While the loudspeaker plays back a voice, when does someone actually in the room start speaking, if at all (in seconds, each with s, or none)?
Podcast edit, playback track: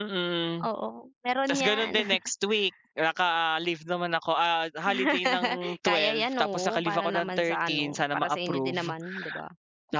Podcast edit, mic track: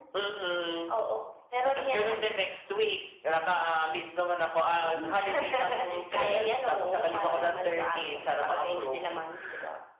4.8 s